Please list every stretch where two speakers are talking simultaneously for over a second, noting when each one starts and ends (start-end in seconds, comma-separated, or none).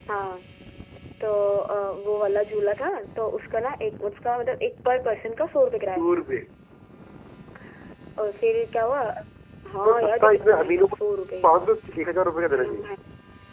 9.7-11.0